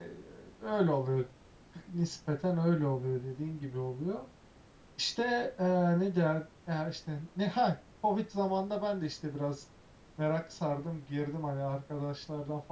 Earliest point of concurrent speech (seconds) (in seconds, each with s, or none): none